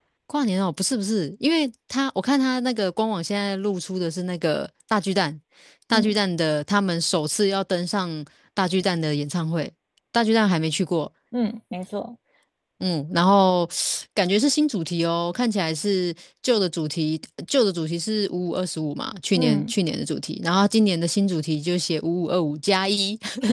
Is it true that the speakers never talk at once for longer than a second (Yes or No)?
Yes